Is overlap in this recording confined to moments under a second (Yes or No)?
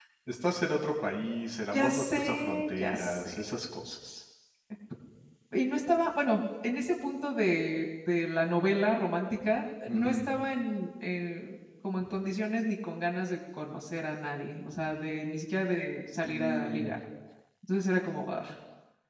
No